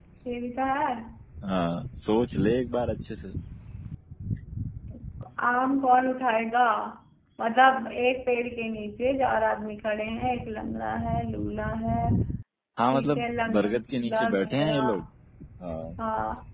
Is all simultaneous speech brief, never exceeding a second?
No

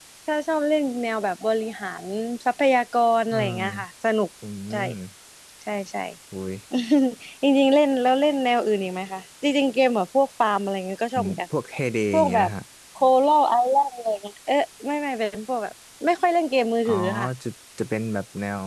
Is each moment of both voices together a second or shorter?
Yes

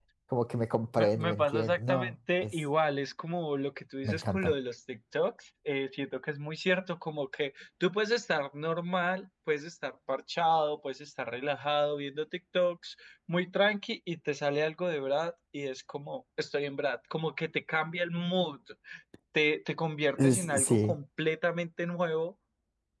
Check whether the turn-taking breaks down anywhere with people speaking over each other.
Yes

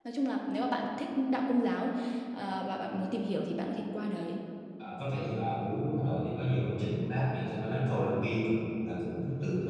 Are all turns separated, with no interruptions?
Yes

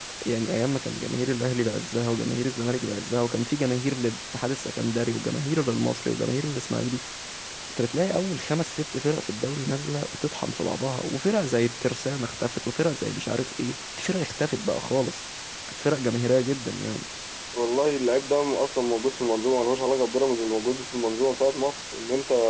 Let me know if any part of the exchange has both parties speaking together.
No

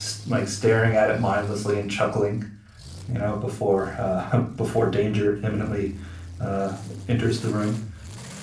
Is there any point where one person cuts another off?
No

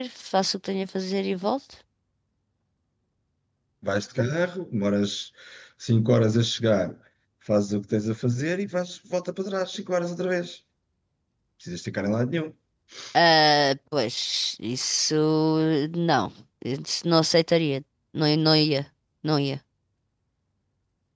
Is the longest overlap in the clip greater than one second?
No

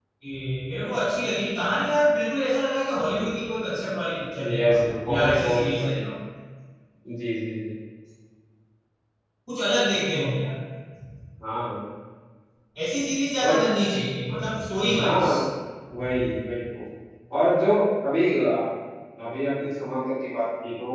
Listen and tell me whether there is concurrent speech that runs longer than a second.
Yes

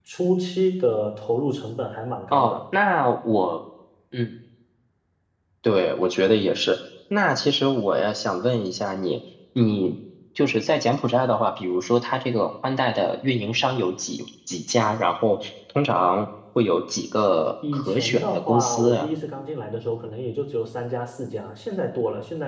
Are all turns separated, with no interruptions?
No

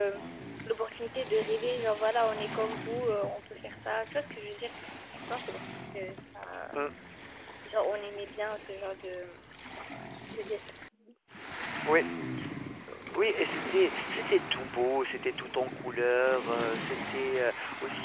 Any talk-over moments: No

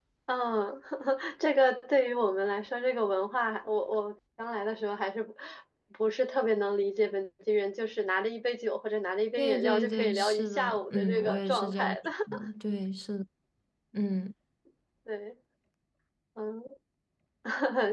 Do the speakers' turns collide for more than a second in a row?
Yes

